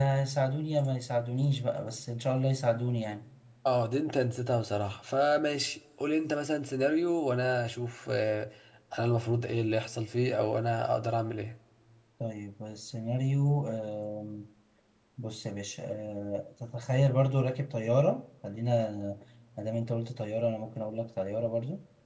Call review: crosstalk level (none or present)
none